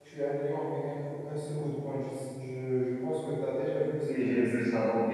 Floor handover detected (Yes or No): Yes